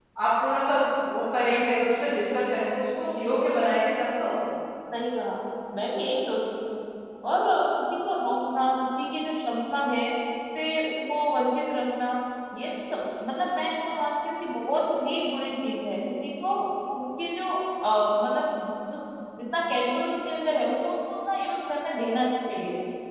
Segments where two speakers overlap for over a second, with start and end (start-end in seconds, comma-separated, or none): none